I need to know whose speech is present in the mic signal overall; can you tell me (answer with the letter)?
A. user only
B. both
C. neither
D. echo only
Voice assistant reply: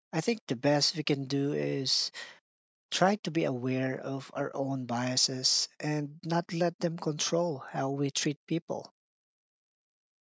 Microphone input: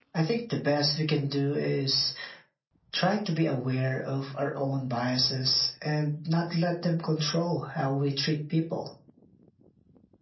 D